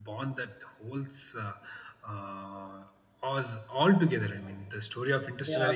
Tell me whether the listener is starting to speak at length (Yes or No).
Yes